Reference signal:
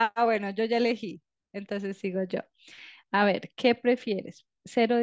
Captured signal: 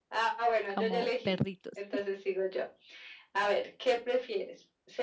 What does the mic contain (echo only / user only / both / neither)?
both